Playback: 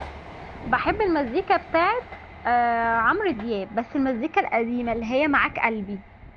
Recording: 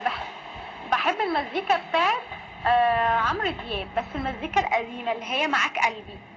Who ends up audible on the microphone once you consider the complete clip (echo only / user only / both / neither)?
echo only